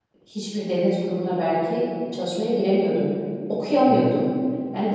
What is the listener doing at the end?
listening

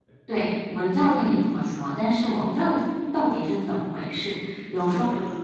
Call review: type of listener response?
taking over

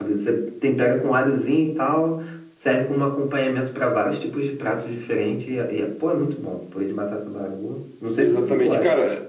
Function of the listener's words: taking over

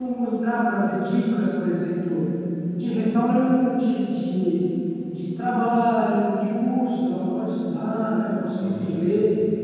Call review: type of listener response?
listening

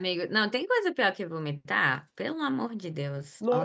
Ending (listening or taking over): taking over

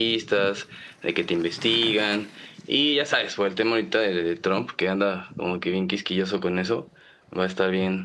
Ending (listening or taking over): listening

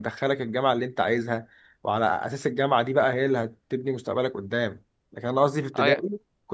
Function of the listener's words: listening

